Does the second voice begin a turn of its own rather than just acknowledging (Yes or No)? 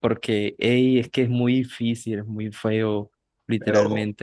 No